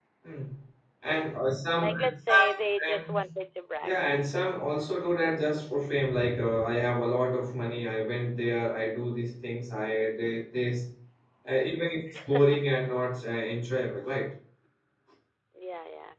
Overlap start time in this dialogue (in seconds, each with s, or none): 1.8 s